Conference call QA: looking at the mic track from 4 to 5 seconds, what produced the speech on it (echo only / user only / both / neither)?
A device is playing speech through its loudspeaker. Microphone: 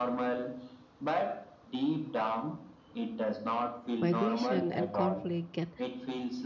both